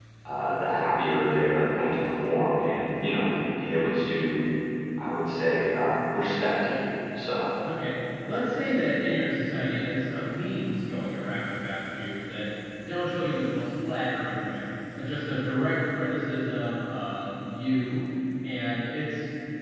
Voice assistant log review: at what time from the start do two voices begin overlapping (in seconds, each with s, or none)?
none